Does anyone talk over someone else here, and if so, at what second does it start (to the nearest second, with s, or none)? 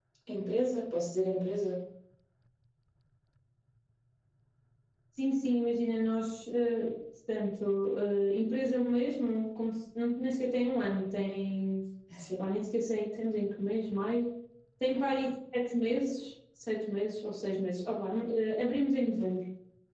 none